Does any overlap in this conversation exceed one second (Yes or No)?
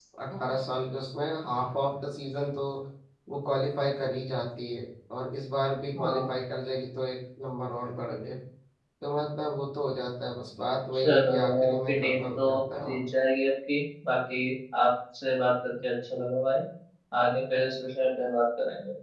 Yes